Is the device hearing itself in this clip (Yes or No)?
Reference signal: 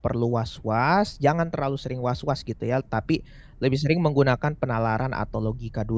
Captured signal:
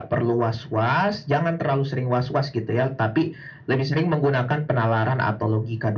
Yes